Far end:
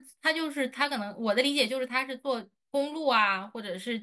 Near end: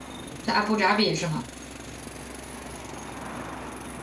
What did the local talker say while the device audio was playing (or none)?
在阿布扎比是吗？